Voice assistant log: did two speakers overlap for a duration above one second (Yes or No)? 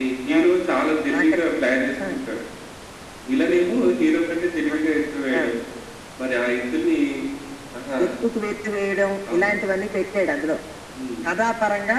No